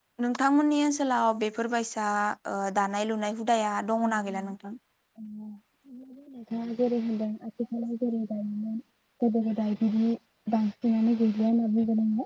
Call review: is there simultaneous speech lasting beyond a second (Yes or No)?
No